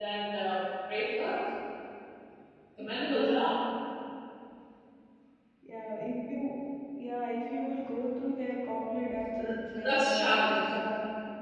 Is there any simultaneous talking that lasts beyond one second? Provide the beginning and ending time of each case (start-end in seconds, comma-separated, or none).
9.4-10.7